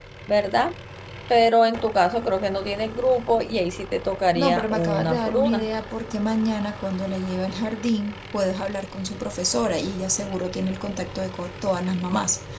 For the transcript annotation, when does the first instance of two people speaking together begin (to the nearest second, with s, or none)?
4 s